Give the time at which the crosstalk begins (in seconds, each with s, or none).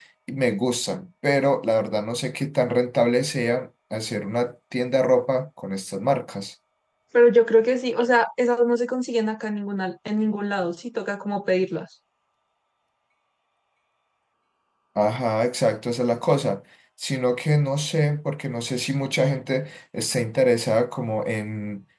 none